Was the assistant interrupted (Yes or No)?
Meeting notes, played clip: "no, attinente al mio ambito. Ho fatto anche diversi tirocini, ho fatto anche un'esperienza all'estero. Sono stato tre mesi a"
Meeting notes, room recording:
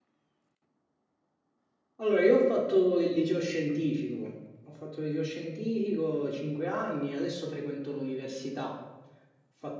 Yes